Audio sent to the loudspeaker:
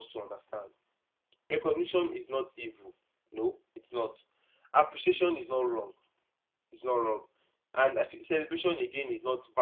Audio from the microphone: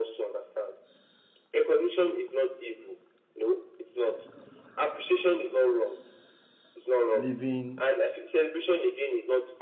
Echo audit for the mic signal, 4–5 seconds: echo only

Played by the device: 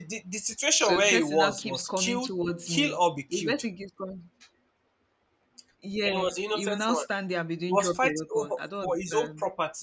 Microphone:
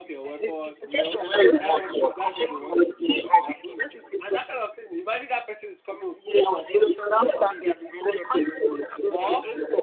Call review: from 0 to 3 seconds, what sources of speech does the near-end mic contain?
both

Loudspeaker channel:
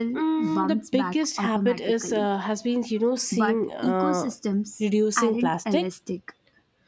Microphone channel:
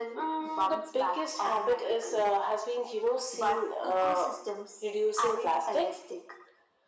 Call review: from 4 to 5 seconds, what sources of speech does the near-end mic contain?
echo only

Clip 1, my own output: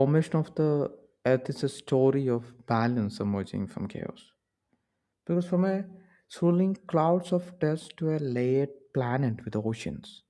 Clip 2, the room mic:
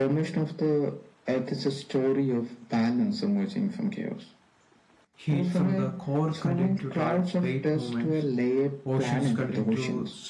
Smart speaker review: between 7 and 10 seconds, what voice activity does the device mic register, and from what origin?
both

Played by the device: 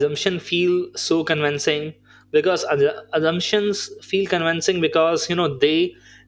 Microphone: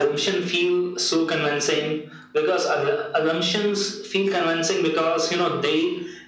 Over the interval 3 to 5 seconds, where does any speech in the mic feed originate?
echo only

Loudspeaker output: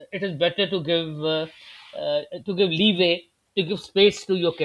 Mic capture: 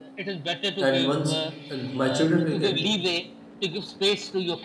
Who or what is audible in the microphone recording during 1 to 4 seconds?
both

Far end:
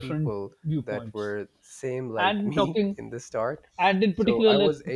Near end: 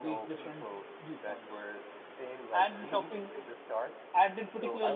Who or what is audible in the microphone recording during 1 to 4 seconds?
echo only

